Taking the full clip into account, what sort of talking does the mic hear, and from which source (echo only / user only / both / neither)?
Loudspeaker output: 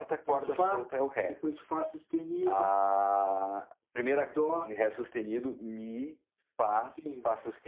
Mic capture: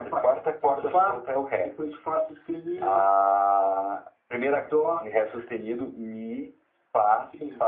echo only